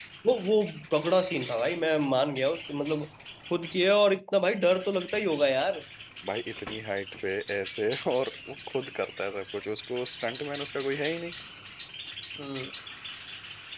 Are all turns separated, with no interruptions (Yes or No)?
Yes